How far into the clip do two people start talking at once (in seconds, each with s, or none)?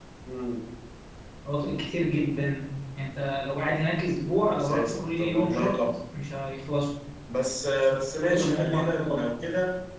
4.5 s